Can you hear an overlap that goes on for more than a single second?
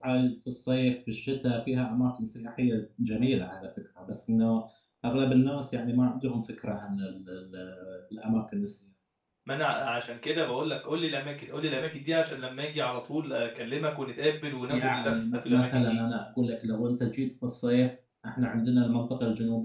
Yes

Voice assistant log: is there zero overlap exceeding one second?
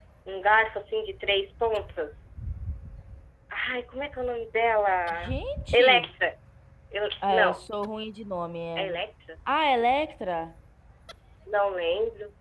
Yes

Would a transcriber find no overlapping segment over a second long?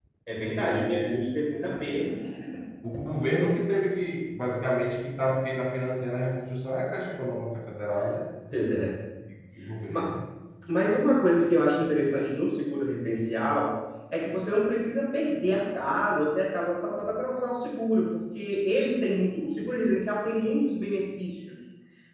Yes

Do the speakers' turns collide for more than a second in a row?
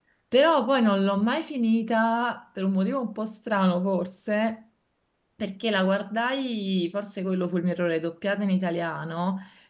No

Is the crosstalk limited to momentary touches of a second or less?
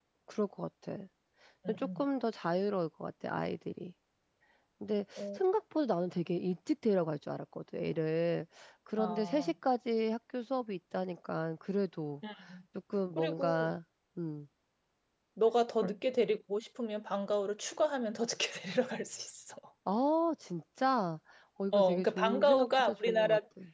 No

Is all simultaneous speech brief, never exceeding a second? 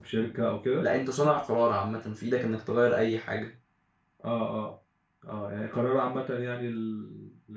Yes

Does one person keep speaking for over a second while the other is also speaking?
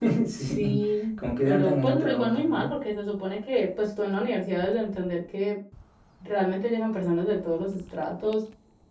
Yes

